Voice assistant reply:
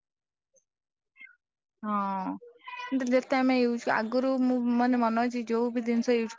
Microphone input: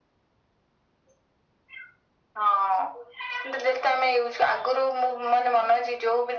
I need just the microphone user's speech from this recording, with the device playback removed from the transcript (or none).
none